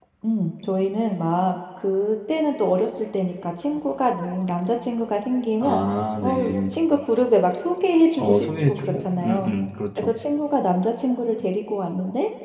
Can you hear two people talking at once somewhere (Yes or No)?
Yes